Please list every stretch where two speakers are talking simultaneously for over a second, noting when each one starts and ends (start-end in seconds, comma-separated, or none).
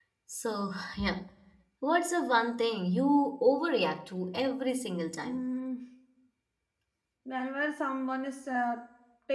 none